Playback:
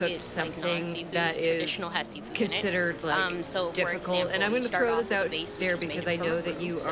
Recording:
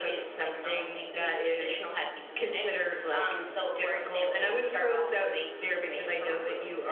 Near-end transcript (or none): none